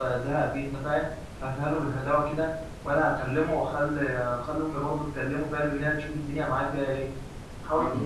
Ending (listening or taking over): listening